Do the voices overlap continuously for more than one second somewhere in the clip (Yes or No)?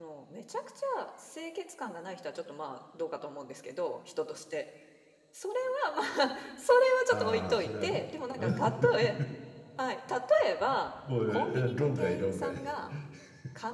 Yes